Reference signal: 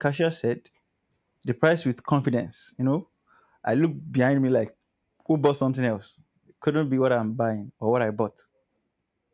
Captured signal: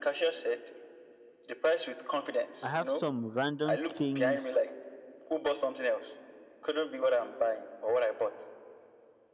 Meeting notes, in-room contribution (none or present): present